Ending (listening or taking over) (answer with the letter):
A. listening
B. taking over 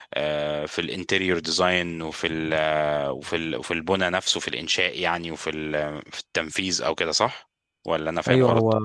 B